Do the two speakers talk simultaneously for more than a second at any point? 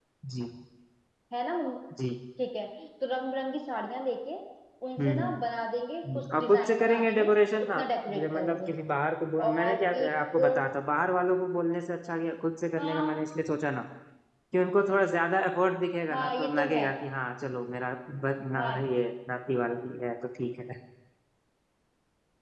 Yes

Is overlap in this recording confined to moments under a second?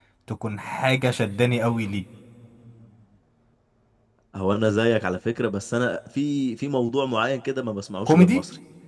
Yes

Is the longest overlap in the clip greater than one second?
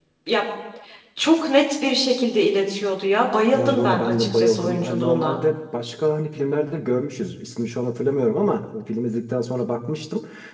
Yes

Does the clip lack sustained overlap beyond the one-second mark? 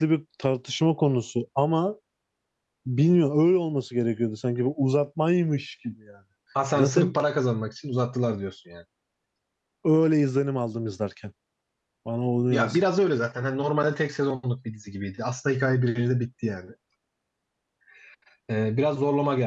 Yes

